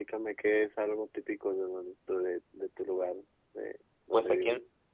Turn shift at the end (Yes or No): Yes